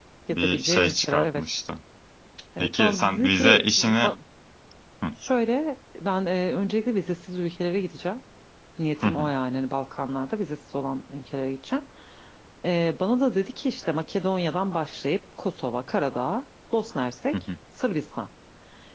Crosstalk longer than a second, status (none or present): present